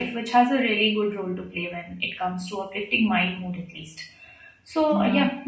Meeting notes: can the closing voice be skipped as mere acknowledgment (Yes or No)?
Yes